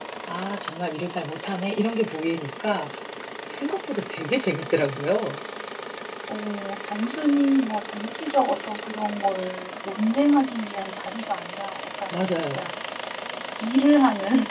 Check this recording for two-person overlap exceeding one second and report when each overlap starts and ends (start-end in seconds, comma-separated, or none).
none